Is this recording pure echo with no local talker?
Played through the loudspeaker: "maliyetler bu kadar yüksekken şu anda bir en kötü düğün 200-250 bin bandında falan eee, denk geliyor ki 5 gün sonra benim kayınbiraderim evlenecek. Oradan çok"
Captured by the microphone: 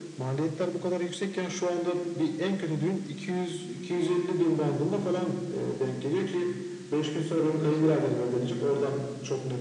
No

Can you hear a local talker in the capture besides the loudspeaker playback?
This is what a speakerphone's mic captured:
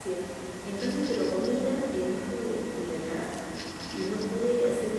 Yes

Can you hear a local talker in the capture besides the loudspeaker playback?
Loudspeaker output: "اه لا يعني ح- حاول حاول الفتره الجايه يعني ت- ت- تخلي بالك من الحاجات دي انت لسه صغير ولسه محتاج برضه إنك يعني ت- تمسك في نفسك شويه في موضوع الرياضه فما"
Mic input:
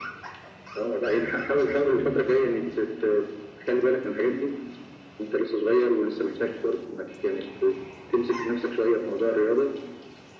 Yes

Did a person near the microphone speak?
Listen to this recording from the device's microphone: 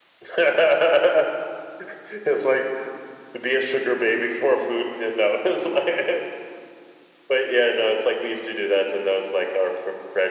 No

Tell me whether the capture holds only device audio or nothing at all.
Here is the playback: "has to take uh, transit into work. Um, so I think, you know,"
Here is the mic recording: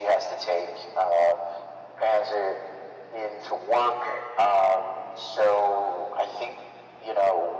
Yes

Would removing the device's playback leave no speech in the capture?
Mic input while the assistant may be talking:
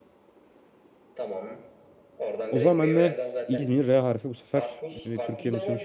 No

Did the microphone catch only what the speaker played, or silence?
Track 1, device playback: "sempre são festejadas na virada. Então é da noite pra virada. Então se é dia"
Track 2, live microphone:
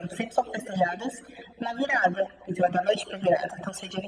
Yes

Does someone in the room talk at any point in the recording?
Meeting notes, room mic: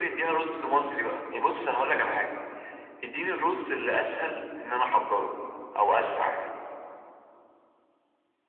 No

